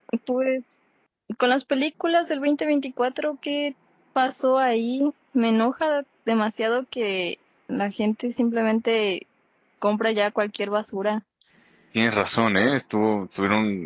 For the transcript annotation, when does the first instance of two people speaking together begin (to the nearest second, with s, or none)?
none